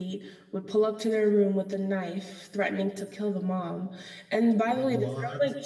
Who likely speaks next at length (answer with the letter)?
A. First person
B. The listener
A